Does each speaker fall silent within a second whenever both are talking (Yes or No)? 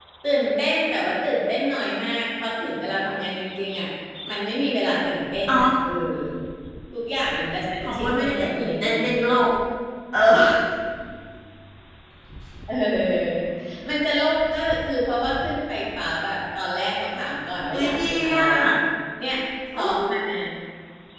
No